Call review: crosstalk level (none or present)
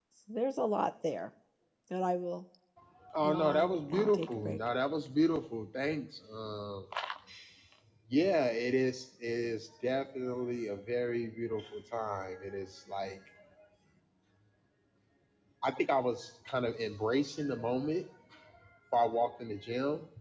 present